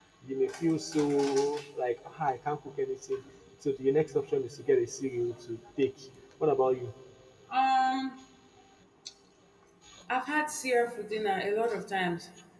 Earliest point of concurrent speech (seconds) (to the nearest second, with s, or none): none